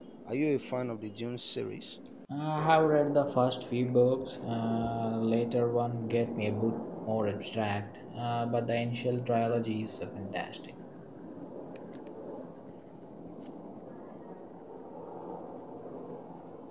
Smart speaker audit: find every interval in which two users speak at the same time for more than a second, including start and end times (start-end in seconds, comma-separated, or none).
none